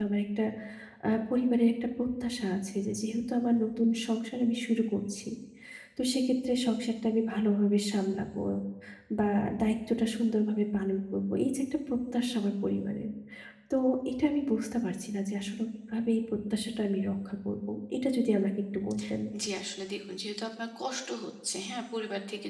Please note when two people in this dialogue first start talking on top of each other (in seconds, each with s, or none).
none